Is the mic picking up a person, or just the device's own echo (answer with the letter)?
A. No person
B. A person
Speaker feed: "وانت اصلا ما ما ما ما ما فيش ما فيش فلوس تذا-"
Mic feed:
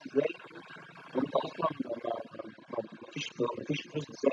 A